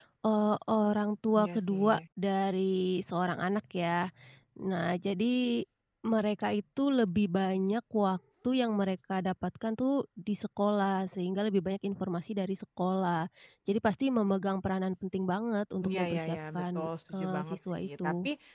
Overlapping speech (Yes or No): Yes